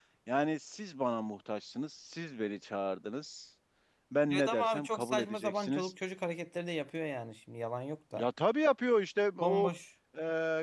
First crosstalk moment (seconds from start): 4.3 s

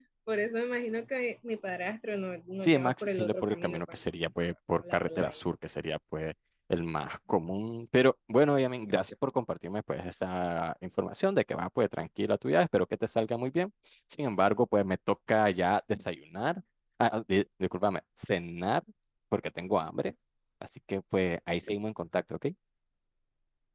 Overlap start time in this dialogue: 2.6 s

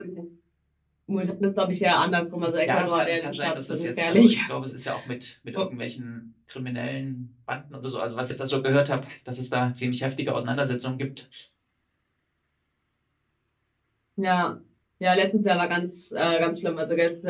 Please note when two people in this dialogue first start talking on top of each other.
2.7 s

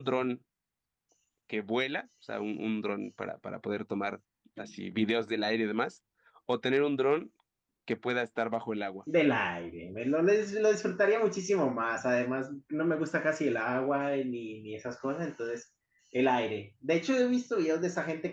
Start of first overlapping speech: none

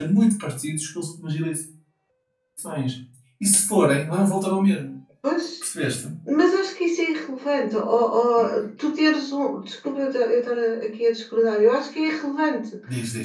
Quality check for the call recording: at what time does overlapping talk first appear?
none

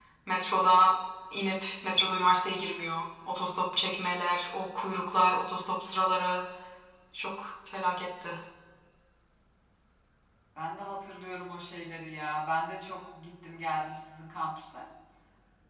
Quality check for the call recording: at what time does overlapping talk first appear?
none

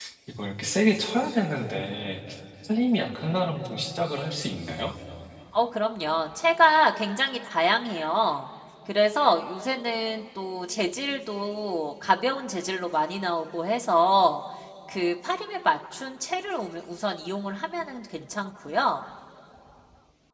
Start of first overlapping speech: none

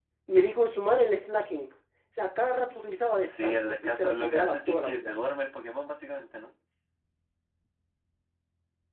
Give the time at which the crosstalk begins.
3.2 s

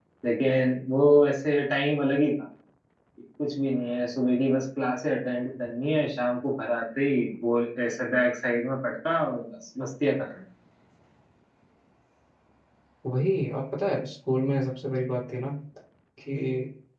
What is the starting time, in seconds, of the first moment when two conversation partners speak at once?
none

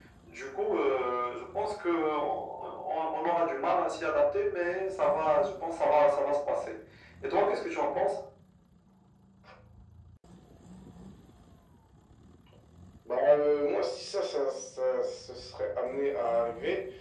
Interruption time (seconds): none

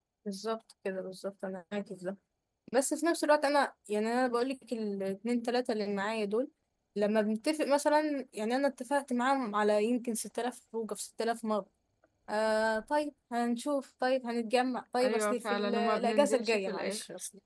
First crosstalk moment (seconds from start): 15.0 s

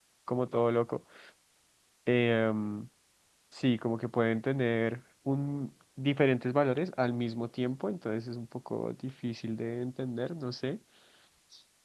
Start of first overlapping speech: none

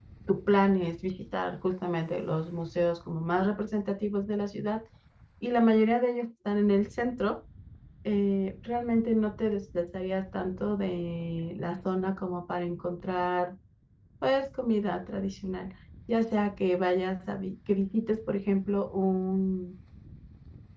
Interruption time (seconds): none

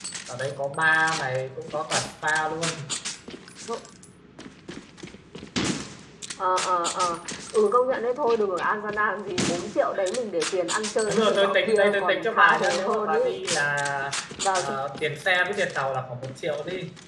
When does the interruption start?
11.1 s

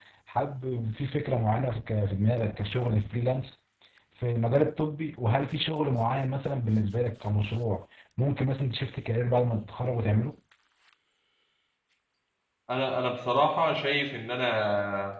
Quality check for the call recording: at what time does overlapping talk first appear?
none

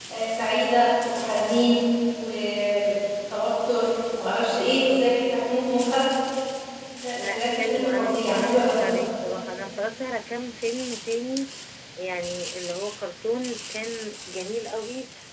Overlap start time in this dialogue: 7.2 s

